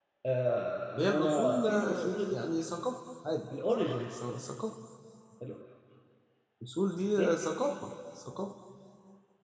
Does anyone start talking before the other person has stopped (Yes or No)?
Yes